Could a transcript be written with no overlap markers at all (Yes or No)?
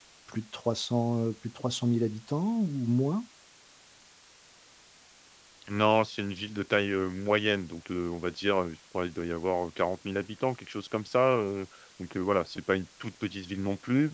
Yes